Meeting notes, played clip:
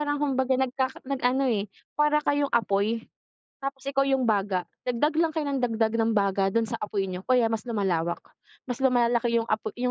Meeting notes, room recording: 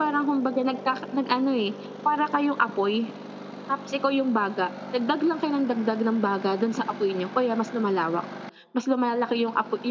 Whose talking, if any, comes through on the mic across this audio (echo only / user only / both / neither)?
echo only